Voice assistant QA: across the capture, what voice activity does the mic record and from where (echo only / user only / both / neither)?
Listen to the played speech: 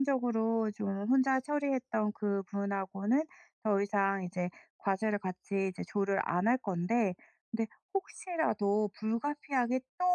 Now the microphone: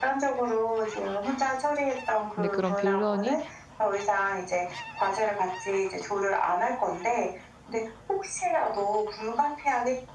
both